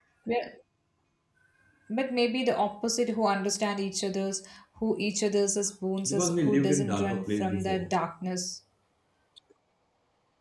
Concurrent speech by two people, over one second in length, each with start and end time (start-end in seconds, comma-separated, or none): 6.1-7.9